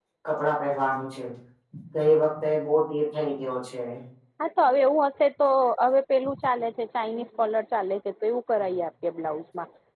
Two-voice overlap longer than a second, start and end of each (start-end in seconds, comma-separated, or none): none